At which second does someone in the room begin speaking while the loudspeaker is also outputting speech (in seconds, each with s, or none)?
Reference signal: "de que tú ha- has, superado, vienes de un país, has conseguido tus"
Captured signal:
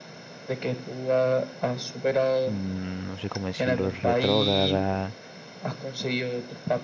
2.4 s